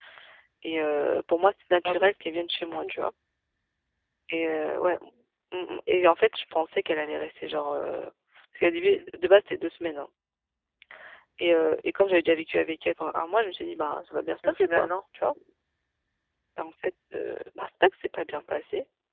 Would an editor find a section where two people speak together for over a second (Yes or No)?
No